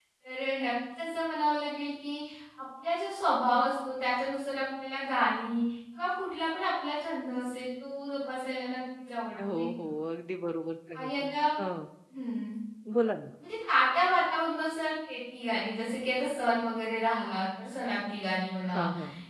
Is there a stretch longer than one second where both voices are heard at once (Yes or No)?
No